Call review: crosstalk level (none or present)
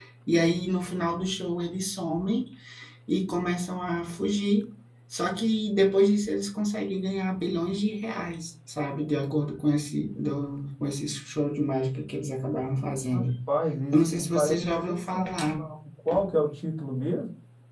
present